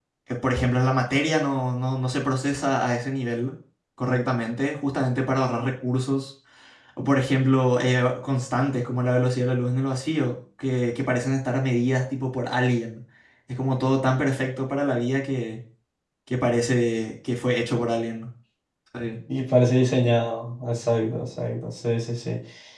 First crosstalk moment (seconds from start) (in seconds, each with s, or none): none